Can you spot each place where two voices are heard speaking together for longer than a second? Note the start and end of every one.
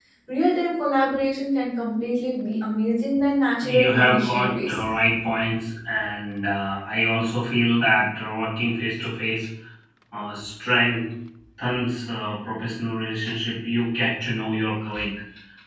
3.6-4.8

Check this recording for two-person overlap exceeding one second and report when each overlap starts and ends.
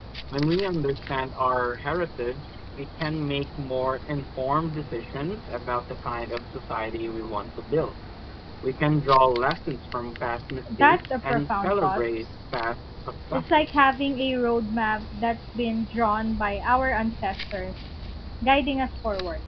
10.8-12.0

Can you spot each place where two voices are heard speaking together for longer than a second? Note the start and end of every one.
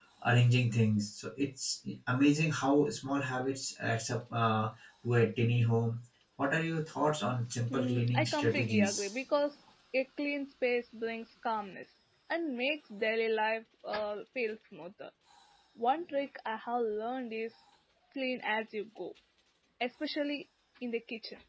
7.7-9.0

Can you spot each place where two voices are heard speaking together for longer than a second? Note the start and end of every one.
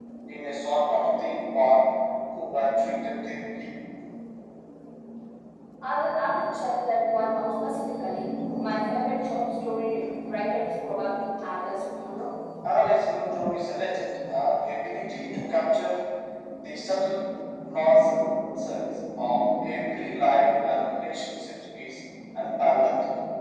none

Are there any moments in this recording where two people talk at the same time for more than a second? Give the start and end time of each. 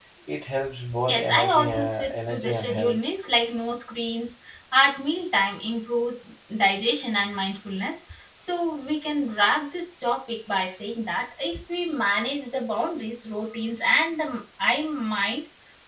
1.1-3.1

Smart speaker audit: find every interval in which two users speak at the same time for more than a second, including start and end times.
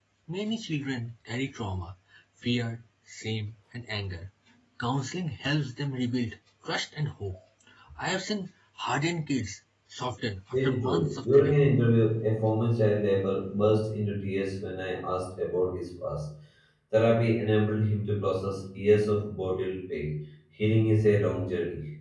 10.5-11.7

